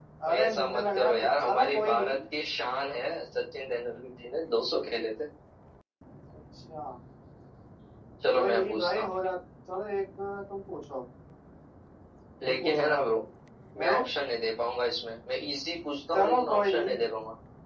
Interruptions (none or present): present